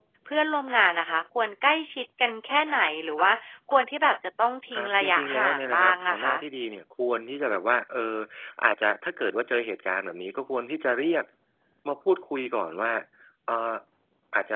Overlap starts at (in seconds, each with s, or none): 4.7 s